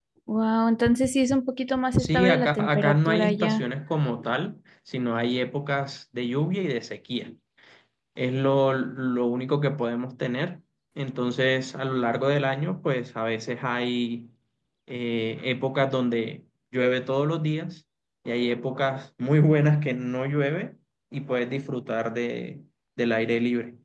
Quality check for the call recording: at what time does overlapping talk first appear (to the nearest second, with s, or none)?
2 s